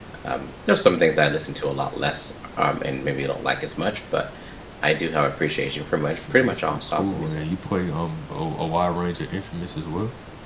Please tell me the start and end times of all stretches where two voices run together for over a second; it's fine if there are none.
6.1-7.4

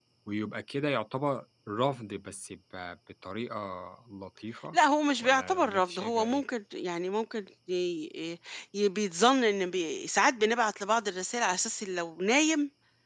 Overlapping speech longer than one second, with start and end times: 5.2-6.4

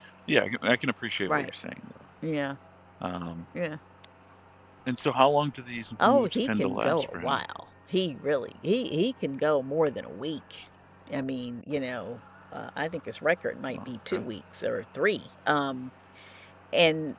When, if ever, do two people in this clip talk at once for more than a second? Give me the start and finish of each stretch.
6.0-7.4

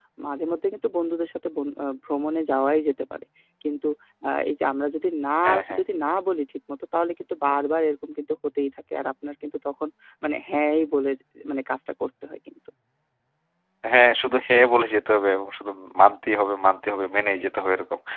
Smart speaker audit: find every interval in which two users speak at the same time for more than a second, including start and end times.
none

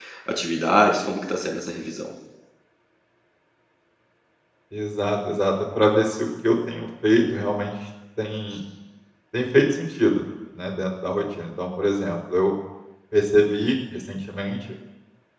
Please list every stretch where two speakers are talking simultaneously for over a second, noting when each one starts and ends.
none

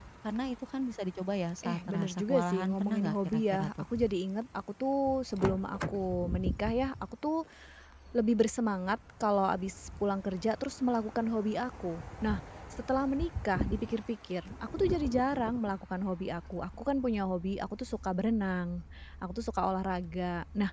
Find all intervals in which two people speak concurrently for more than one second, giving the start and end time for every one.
1.6-3.7

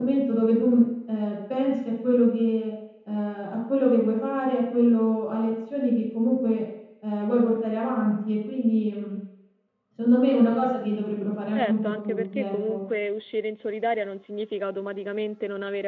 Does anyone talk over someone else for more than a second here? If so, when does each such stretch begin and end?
11.6-12.8

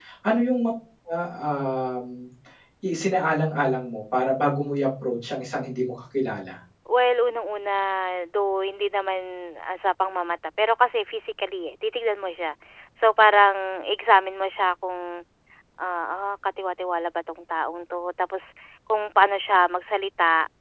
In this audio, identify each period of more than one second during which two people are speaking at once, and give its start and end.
none

